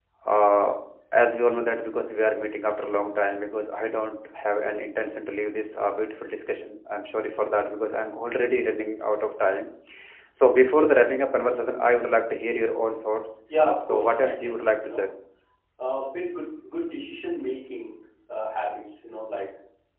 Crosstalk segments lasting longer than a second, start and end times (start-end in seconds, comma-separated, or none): 13.8-15.1